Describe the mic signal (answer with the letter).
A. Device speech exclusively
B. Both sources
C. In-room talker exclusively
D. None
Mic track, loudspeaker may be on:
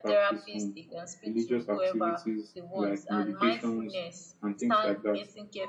B